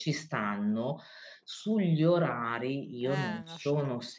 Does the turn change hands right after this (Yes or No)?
No